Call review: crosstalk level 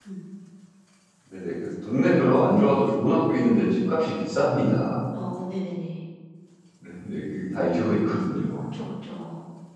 none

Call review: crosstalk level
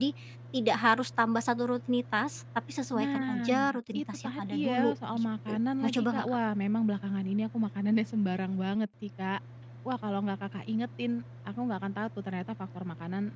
present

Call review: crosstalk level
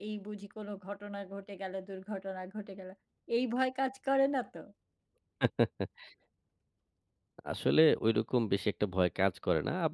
none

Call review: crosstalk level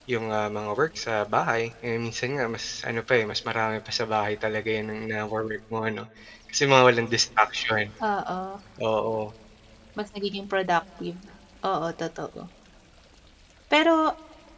none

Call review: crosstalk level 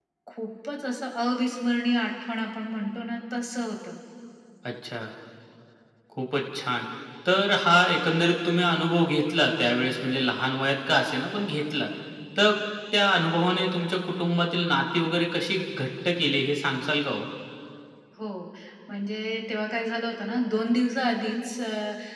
none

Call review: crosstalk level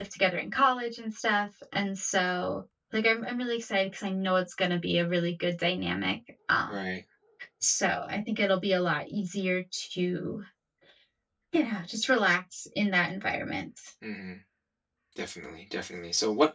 none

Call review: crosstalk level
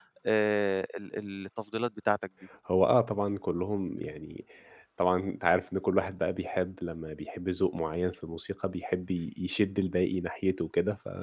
none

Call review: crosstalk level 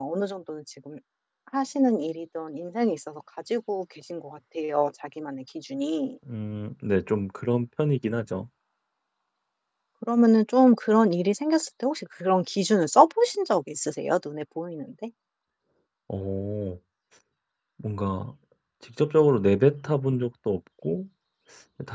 none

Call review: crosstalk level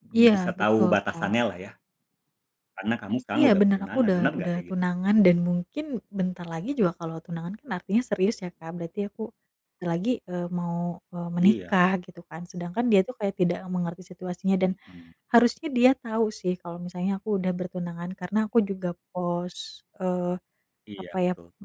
present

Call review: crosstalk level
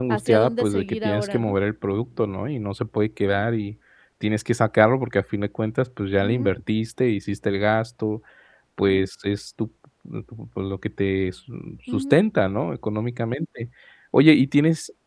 present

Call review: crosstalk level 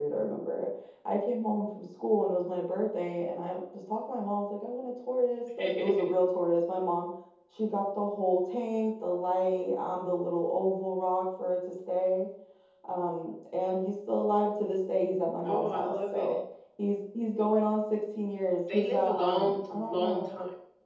present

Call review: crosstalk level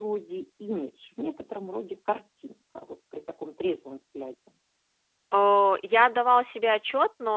none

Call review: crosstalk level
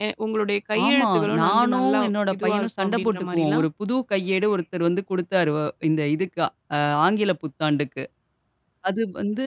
present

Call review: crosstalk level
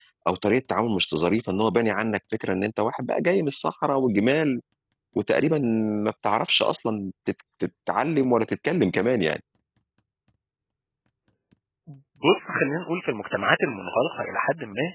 none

